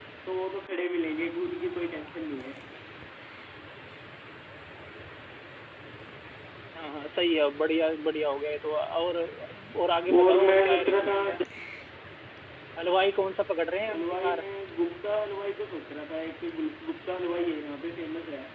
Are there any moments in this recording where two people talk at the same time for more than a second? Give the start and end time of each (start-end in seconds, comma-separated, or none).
10.2-11.4